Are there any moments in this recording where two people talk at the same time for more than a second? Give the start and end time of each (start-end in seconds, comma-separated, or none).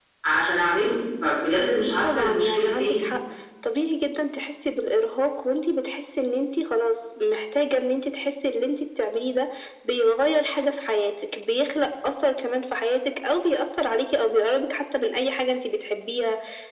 1.6-3.0